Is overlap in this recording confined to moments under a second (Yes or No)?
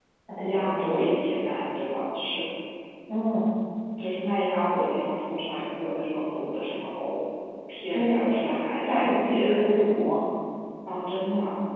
No